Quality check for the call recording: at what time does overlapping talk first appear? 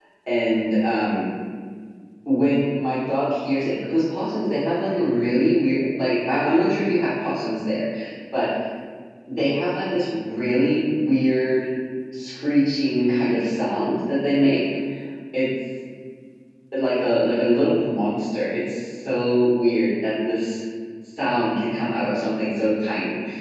none

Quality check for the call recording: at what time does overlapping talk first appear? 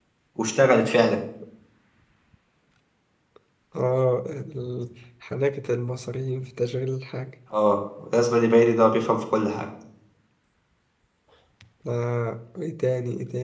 none

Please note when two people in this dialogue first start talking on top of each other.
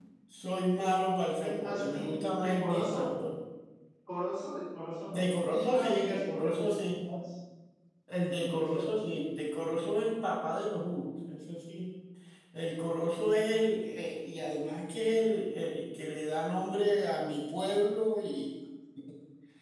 1.4 s

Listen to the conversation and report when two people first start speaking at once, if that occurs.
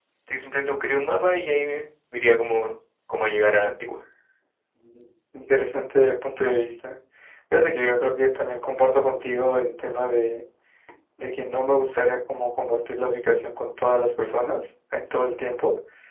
none

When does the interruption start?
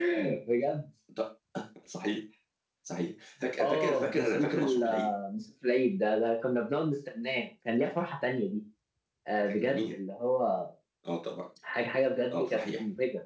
3.6 s

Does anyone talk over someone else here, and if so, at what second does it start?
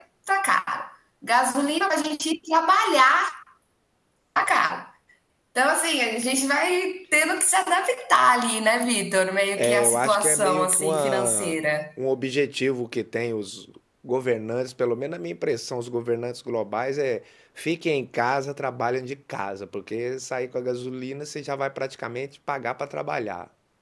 9.6 s

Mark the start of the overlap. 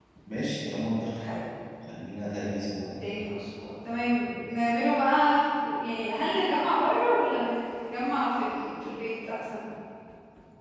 none

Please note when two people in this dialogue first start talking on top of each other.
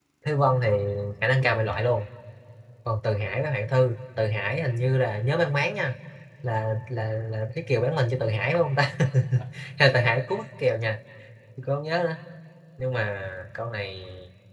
none

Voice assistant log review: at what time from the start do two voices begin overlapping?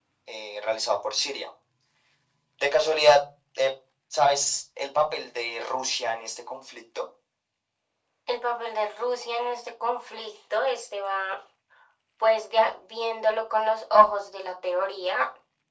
none

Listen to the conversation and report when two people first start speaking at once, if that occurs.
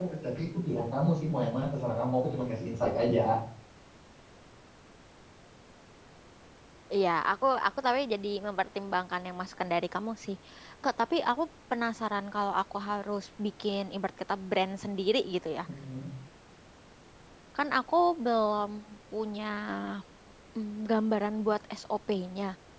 none

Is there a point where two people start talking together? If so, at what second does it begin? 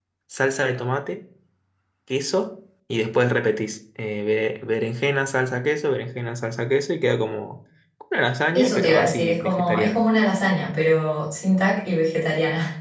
8.5 s

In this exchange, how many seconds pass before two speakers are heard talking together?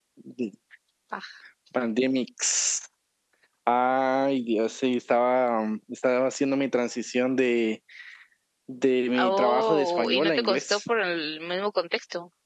9.2 s

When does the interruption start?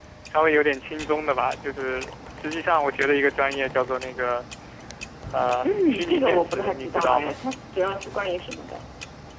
5.6 s

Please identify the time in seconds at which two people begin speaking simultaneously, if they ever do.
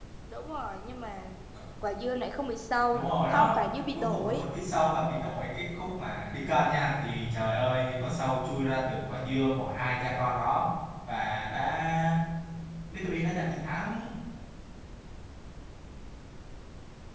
2.9 s

